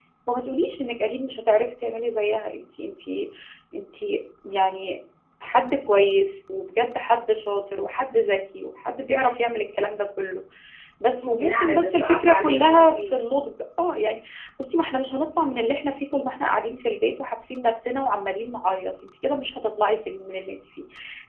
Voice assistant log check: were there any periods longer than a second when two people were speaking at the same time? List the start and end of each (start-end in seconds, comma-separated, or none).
11.2-13.0